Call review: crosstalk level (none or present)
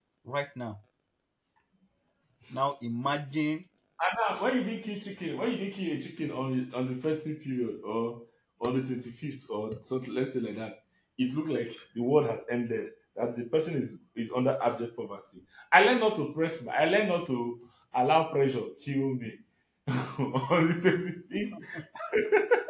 none